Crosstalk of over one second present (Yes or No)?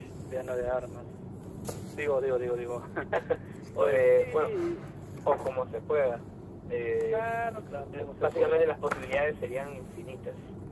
Yes